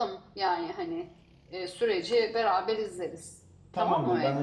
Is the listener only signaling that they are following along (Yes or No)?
No